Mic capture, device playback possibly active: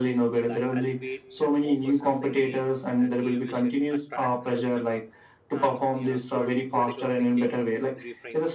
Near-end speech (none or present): present